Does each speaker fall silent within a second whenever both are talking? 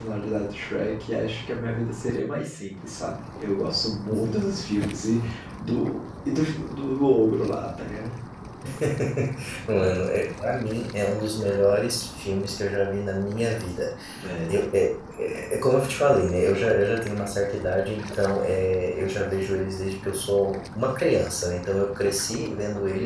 Yes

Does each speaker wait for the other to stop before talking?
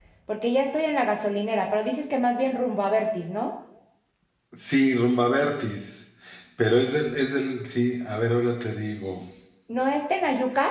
Yes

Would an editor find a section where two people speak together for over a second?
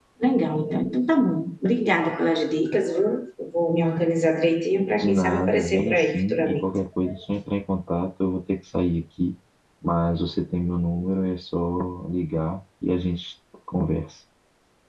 Yes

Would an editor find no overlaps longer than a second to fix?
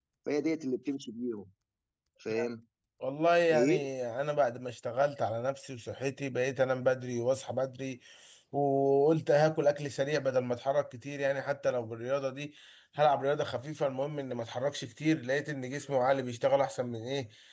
Yes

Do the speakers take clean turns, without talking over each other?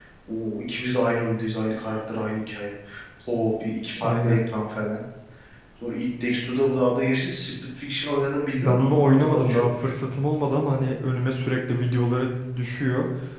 No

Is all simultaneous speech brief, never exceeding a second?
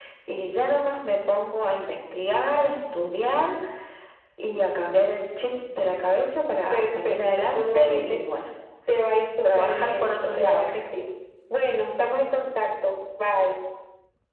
No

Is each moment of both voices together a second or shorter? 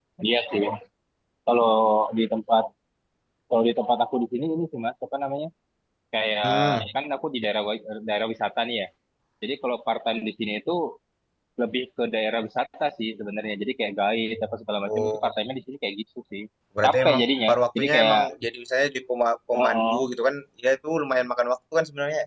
No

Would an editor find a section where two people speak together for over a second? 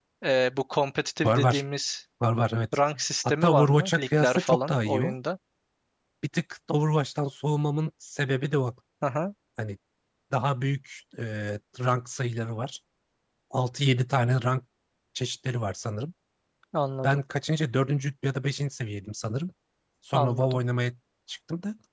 Yes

